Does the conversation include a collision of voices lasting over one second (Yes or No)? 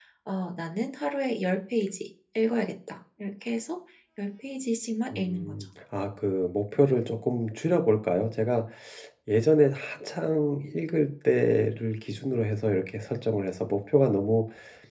No